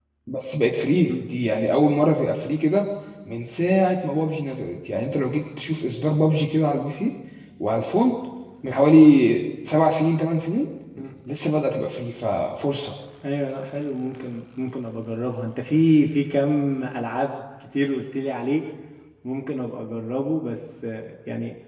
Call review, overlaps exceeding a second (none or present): none